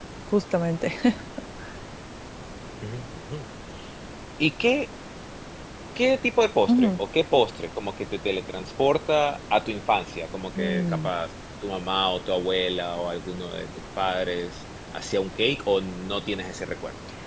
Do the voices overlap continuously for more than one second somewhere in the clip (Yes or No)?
No